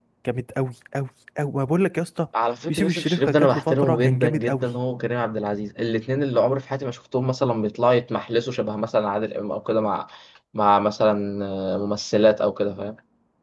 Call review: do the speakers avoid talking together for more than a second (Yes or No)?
No